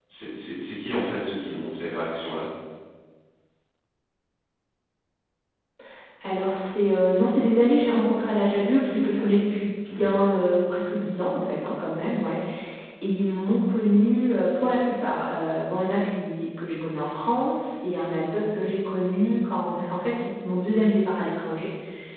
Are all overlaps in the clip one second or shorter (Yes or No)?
Yes